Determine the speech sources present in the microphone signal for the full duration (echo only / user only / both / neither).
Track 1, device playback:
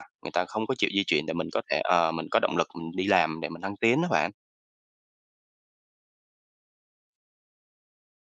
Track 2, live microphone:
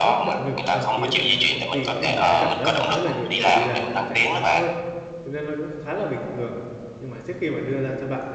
both